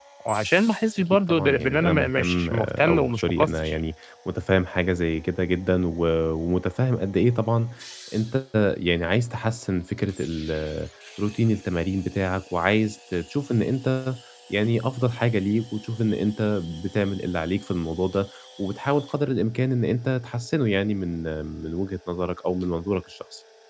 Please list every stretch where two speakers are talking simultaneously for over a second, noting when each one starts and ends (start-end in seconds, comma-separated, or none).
1.1-3.8